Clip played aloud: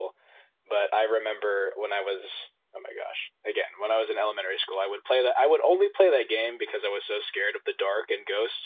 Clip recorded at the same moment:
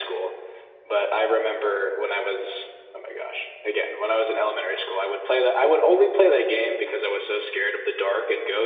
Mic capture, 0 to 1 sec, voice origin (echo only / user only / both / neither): echo only